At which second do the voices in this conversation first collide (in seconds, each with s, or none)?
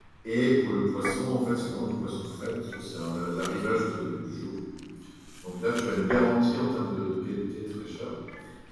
none